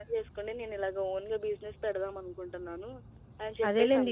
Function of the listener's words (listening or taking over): taking over